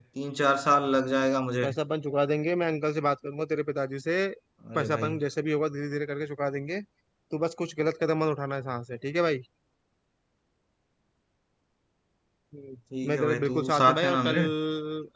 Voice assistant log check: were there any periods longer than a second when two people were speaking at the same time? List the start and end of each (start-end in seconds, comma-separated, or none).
13.0-14.4